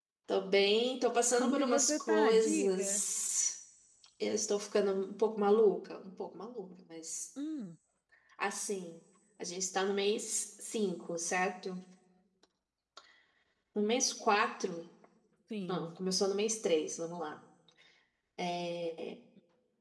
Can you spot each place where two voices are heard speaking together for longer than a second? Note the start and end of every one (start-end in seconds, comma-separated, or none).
1.3-3.0